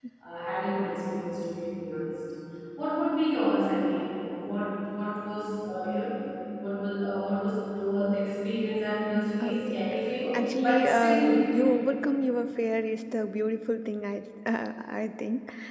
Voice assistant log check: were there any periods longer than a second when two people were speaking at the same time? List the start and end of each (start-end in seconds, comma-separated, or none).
10.3-11.7